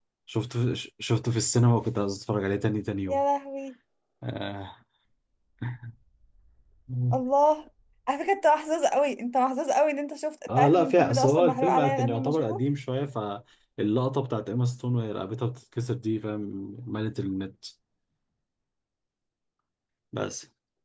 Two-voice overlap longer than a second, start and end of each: 10.6-12.6

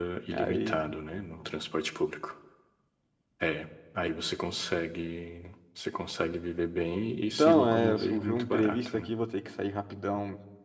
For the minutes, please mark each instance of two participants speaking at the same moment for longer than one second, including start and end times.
7.4-9.1

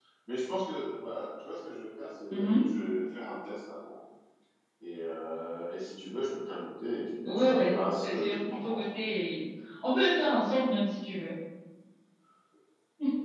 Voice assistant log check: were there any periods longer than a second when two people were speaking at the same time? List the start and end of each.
7.2-8.8

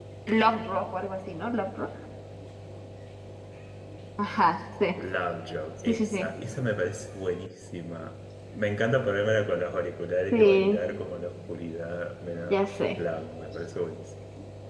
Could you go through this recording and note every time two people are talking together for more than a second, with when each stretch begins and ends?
none

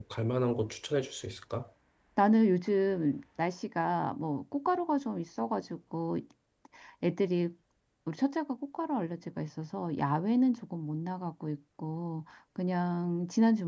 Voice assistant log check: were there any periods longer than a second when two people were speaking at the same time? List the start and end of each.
none

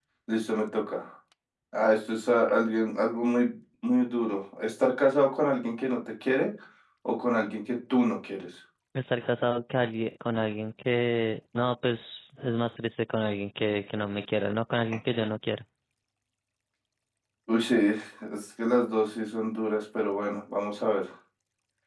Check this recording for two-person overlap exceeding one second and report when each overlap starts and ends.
none

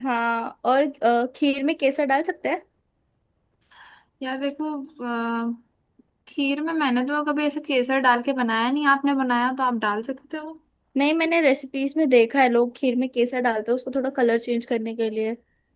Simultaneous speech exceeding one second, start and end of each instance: none

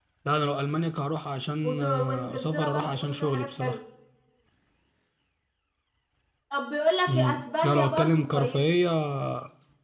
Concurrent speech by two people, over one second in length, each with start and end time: 1.6-3.8, 7.1-8.6

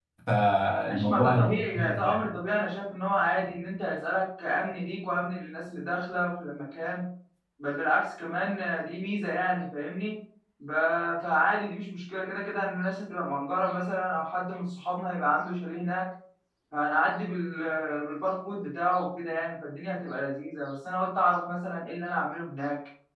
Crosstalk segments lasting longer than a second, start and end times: 0.9-2.3

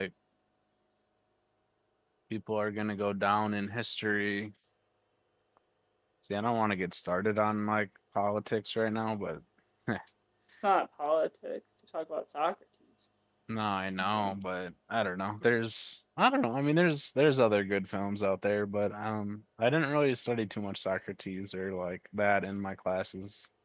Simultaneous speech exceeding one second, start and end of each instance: none

